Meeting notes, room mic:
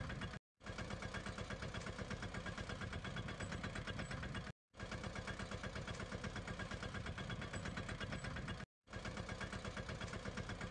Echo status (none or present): none